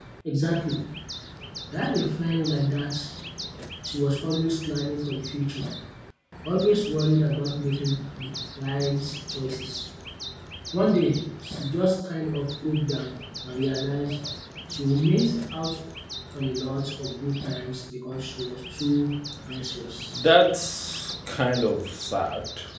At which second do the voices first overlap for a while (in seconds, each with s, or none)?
none